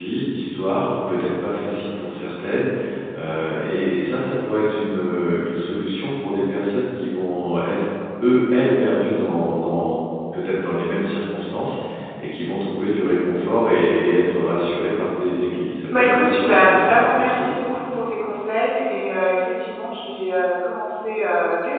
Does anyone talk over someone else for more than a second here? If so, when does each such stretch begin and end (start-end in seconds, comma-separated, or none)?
16.0-17.6